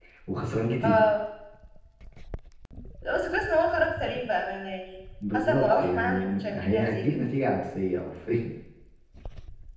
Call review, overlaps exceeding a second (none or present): present